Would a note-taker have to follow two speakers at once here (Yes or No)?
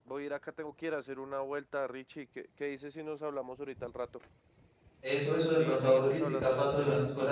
Yes